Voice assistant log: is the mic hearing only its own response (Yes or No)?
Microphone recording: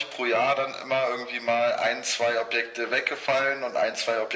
Yes